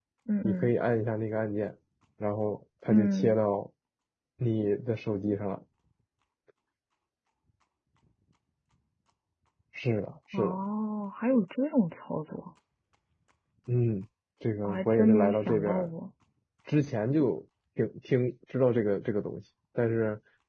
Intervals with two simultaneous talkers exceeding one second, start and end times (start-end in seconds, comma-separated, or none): 14.6-15.9